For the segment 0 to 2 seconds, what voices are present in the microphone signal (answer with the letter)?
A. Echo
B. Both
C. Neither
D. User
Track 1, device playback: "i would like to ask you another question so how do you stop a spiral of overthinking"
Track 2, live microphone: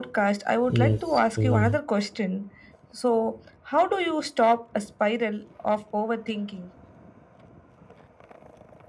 B